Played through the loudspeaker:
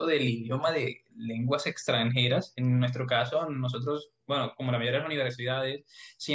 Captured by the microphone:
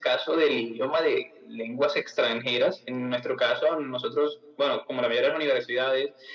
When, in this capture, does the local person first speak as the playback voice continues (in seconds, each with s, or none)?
none